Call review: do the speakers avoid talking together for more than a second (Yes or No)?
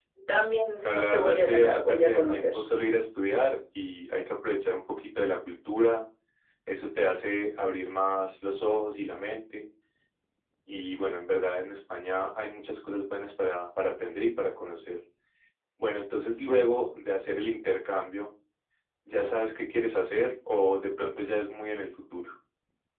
No